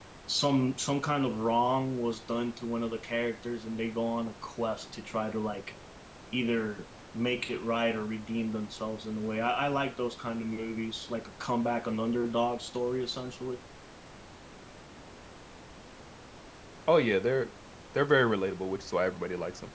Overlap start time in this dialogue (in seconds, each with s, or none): none